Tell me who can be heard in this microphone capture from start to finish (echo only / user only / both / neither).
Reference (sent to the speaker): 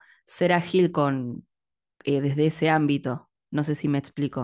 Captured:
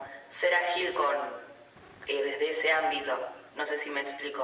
echo only